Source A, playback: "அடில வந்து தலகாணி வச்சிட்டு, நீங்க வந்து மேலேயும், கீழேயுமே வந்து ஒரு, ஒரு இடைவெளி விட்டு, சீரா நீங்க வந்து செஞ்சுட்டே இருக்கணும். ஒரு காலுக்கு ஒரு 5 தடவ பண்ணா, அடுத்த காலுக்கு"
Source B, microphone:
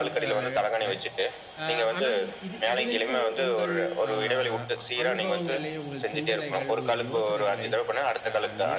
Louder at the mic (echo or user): echo